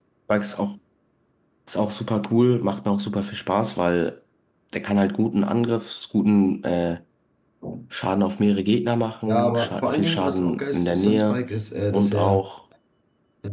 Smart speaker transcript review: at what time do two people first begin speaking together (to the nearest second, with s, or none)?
9 s